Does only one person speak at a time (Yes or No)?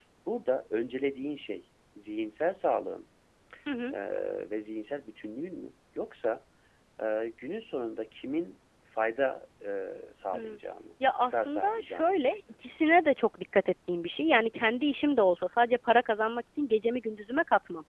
No